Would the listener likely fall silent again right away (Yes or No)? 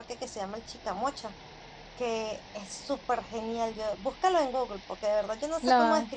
Yes